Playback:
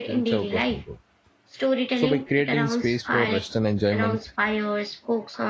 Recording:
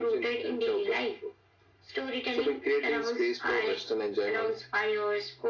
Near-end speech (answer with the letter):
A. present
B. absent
B